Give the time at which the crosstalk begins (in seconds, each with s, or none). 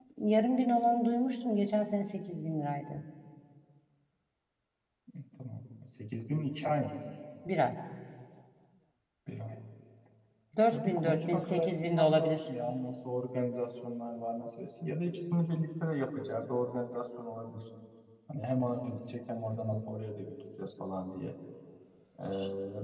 10.7 s